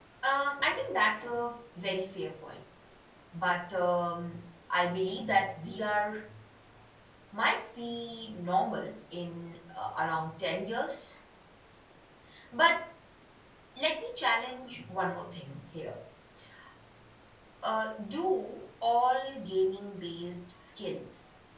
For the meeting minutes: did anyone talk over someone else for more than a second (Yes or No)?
No